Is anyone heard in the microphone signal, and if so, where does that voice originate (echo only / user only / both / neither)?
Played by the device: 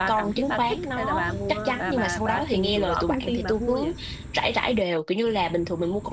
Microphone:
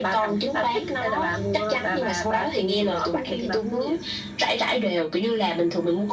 echo only